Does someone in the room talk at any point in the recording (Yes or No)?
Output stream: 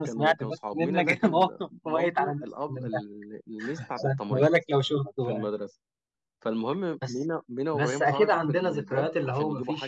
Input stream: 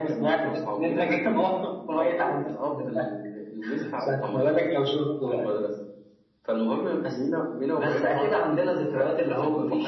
No